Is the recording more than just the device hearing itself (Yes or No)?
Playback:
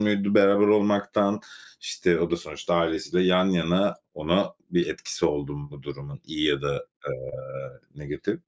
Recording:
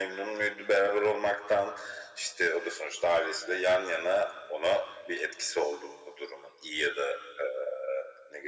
No